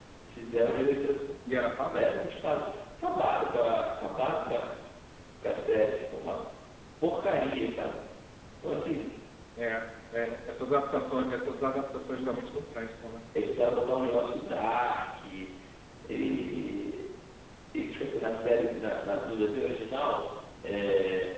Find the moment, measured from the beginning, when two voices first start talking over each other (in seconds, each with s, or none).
none